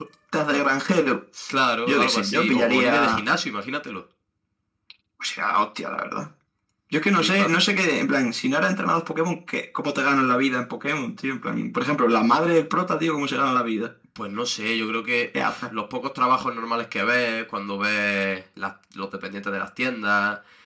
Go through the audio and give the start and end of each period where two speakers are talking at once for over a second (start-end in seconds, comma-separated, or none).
1.9-3.2